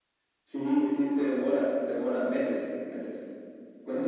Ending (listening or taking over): taking over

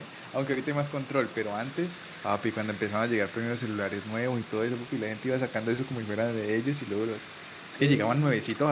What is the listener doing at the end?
listening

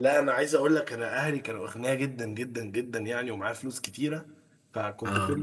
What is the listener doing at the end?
listening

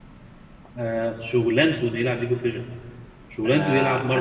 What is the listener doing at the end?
taking over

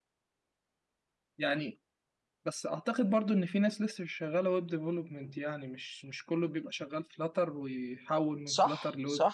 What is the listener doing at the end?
taking over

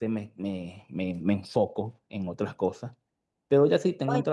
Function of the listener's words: listening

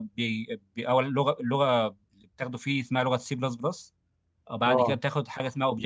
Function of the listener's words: listening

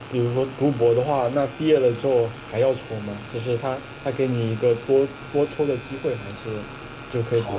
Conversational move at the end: taking over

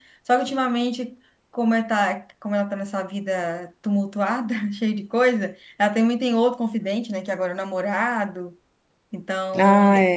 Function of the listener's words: listening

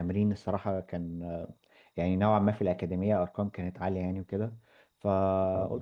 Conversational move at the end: listening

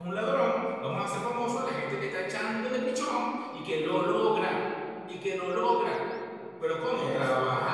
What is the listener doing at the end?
listening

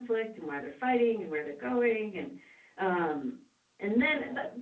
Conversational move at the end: listening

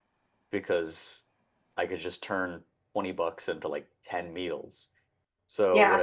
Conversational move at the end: listening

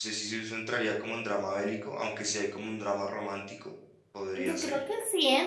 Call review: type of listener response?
taking over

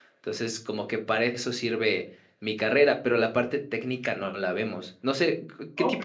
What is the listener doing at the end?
taking over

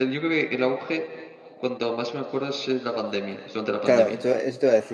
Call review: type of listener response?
taking over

